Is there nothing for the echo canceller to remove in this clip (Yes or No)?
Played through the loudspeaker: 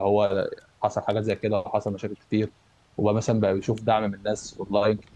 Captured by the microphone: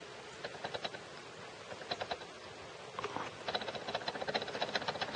Yes